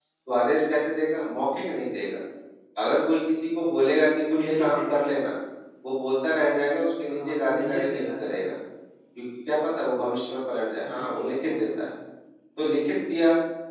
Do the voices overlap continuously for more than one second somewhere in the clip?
Yes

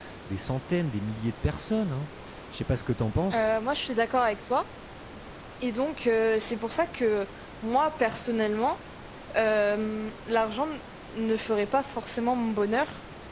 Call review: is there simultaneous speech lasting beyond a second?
No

